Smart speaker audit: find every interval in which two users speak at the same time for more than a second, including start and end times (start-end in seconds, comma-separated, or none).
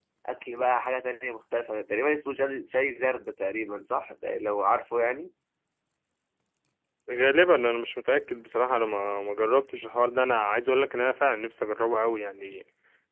none